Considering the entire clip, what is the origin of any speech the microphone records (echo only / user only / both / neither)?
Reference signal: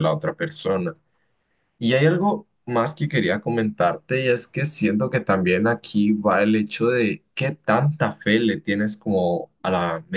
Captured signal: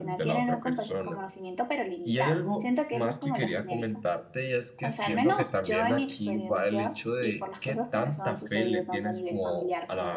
both